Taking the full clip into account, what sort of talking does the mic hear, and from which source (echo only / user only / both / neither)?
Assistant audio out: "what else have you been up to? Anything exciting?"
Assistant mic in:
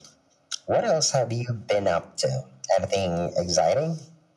echo only